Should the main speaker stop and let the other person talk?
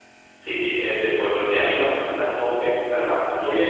Yes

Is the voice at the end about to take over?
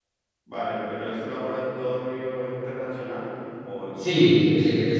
Yes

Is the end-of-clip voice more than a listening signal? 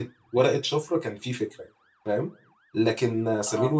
No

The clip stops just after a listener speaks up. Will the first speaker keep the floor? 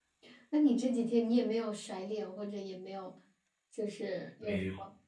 No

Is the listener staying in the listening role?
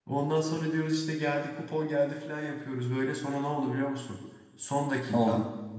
Yes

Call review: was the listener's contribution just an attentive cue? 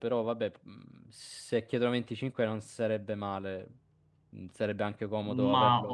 No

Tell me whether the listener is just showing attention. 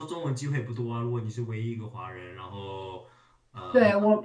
No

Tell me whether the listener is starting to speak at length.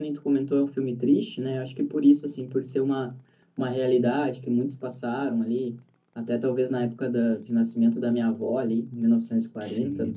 No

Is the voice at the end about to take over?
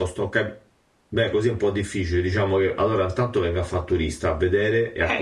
Yes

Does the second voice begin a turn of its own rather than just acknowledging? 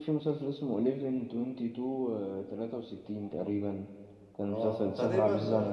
Yes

